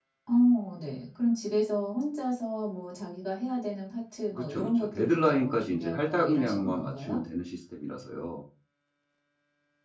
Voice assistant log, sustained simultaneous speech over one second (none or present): present